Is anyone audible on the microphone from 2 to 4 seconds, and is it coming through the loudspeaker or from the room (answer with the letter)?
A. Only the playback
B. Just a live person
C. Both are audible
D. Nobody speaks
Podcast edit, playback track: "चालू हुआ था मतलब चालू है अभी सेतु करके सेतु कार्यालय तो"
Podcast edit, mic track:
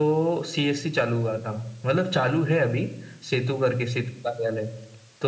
A